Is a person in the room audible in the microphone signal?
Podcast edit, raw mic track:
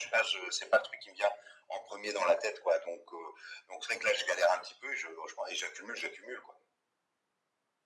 No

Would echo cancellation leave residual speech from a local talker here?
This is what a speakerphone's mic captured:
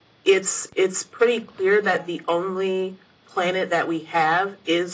Yes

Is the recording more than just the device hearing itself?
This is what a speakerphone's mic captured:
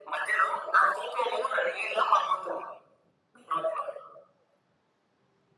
No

